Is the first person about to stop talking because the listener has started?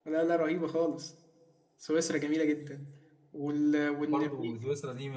Yes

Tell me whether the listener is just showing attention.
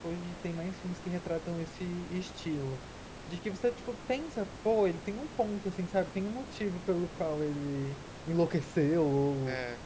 Yes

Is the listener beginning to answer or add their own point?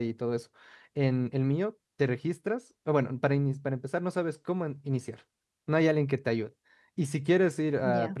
No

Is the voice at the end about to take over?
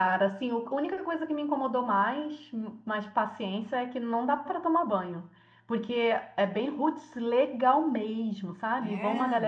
No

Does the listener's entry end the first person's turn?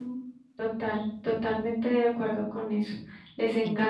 No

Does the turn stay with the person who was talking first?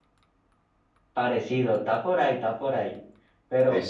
Yes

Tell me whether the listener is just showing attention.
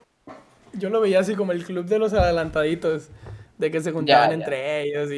Yes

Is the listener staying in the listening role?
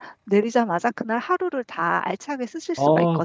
No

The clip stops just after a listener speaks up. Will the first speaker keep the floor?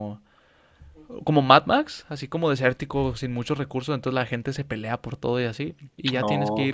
Yes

